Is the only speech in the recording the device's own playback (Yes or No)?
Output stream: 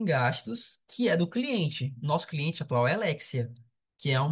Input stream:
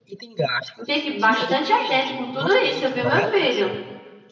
No